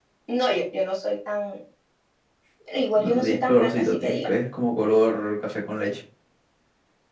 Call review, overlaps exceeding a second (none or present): present